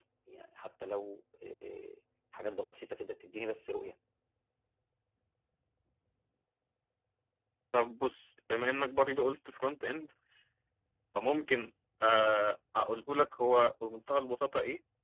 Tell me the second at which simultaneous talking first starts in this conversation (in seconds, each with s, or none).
none